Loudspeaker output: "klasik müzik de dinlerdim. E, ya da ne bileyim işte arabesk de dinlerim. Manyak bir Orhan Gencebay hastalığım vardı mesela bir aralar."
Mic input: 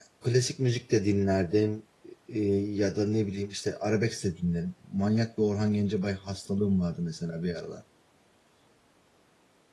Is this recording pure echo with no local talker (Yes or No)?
Yes